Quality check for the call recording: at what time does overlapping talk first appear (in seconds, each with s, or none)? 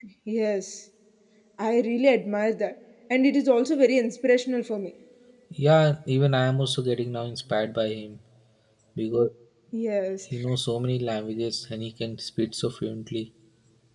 none